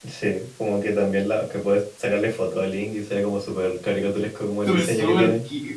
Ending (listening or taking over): taking over